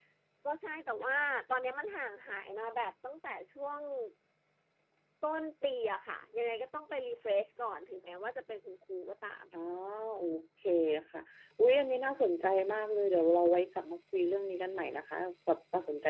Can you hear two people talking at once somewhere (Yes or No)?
No